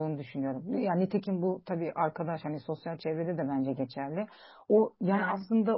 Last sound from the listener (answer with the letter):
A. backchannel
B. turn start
A